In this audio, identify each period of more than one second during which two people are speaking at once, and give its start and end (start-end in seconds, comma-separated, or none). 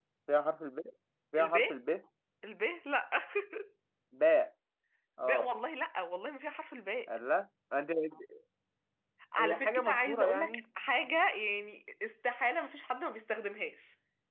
9.4-10.6